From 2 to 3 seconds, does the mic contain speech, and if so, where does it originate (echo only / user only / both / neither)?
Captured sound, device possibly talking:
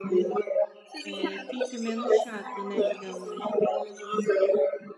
both